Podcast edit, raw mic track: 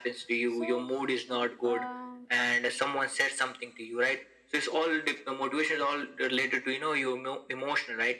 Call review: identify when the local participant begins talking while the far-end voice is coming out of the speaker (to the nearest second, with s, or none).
0 s